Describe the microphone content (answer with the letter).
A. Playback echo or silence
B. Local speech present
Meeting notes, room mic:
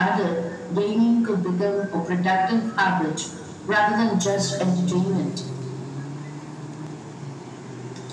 A